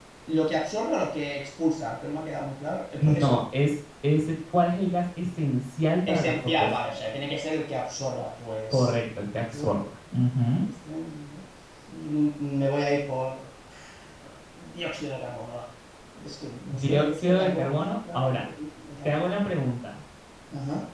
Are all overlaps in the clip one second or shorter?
No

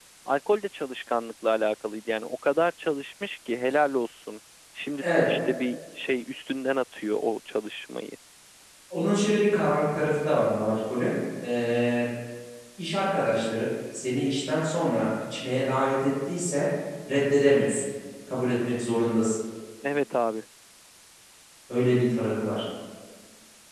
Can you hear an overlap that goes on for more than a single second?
No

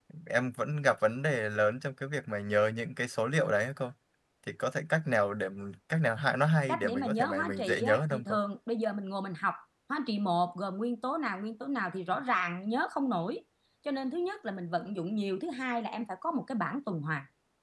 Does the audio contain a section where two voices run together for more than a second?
Yes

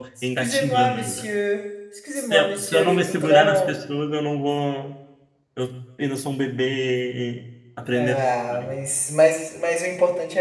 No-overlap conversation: No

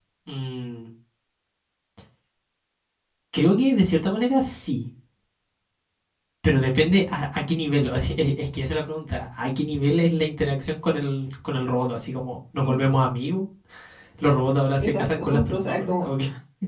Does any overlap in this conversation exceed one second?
Yes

